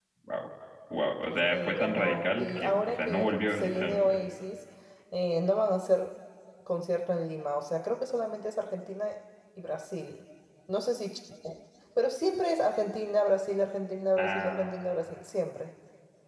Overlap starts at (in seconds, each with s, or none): 1.5 s